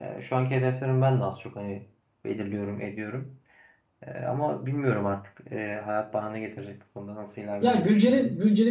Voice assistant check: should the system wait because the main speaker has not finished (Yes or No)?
No